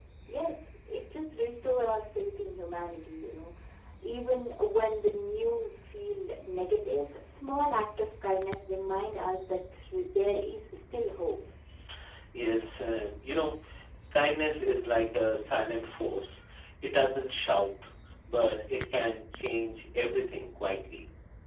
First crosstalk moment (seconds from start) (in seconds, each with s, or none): none